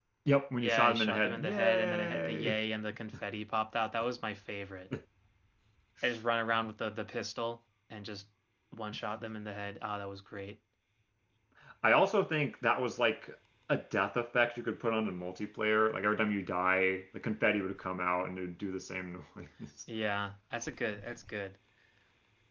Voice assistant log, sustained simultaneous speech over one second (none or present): present